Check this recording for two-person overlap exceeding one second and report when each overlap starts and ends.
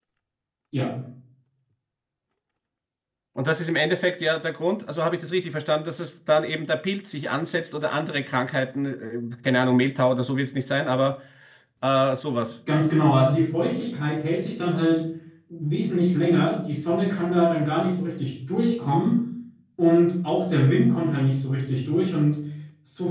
none

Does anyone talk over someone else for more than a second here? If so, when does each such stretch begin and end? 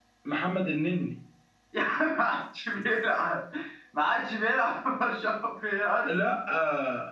none

